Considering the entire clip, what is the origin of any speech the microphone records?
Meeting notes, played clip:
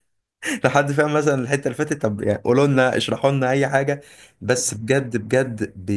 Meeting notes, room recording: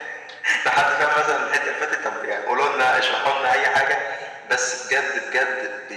echo only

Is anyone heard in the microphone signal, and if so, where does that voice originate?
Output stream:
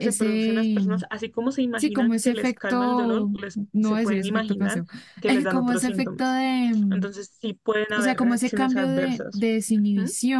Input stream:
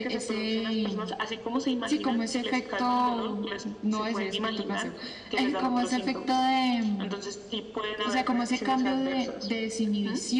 echo only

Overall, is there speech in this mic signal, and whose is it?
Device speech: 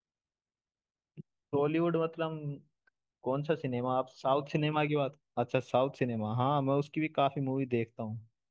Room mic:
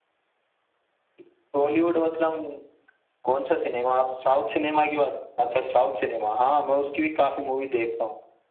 echo only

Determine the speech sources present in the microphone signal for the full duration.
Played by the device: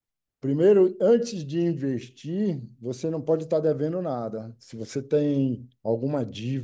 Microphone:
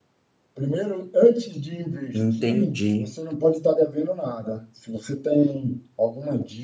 both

